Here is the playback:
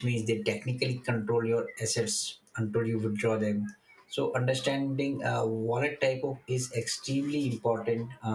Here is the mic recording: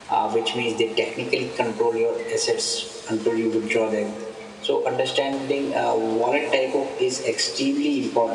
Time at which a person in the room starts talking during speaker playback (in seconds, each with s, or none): none